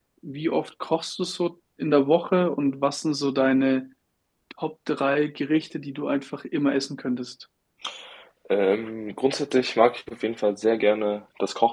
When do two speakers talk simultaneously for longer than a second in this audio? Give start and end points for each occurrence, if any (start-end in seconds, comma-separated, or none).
none